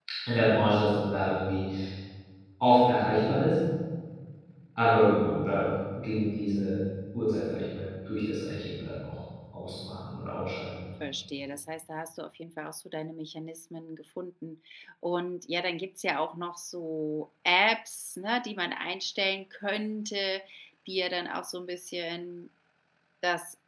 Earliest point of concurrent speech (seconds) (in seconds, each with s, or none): none